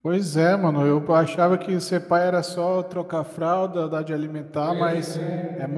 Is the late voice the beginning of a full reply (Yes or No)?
No